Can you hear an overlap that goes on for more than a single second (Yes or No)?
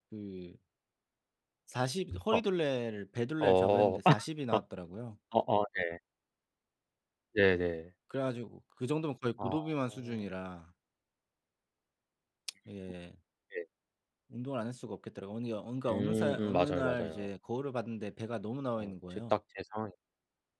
Yes